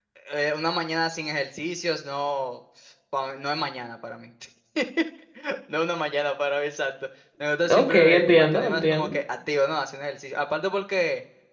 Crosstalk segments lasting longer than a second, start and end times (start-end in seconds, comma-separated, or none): 7.7-9.2